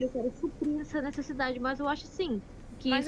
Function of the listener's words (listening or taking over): taking over